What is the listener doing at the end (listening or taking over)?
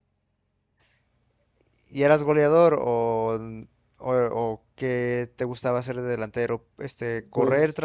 listening